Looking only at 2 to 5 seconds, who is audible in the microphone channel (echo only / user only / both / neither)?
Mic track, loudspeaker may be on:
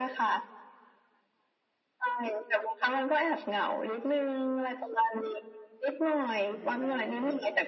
echo only